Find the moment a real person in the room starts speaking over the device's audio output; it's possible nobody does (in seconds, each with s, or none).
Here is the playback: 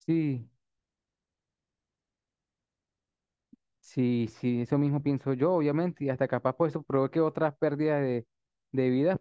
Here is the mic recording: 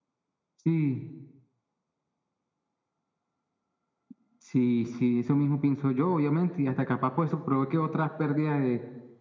none